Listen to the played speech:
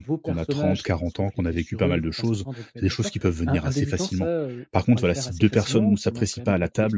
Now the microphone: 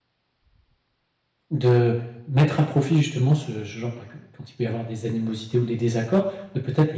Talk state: user only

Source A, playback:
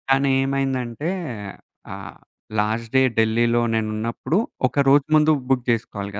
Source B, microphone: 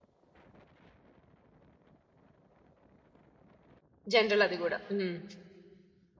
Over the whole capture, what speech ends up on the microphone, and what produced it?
user only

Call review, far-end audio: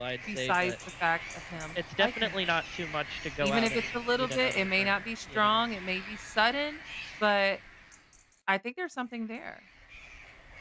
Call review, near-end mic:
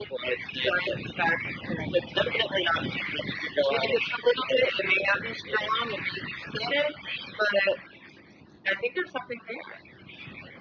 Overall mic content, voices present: echo only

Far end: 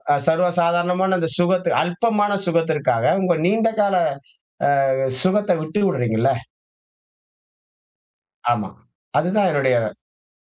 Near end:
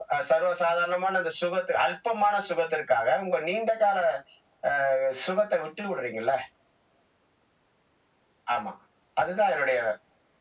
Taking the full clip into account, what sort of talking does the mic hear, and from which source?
echo only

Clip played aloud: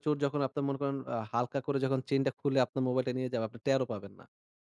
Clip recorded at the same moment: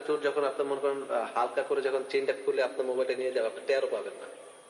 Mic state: echo only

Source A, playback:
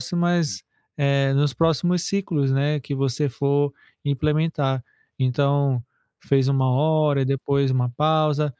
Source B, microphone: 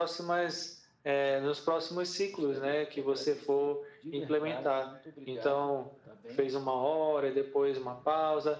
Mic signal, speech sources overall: both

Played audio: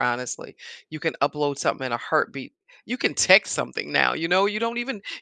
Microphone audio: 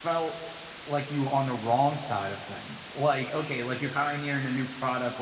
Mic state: user only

